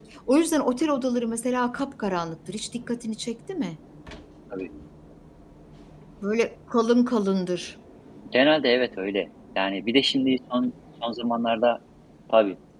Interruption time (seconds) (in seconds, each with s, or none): none